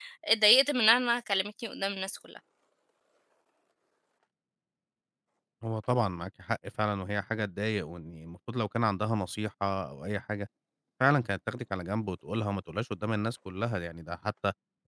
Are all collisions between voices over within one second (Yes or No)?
Yes